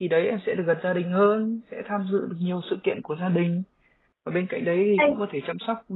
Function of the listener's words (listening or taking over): listening